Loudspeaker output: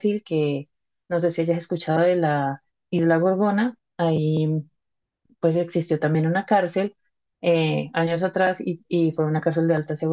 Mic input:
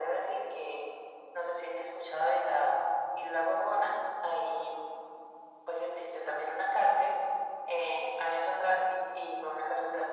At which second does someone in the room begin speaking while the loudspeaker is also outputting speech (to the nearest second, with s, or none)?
none